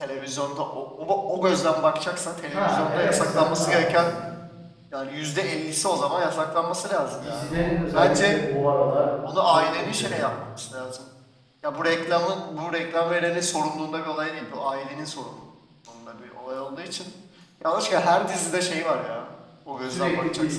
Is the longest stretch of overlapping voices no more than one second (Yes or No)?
No